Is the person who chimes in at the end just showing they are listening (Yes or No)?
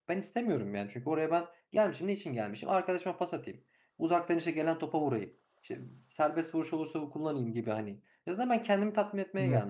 Yes